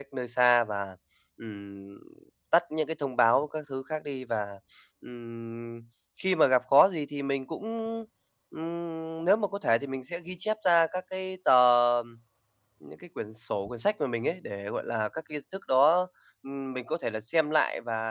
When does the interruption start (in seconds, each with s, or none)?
none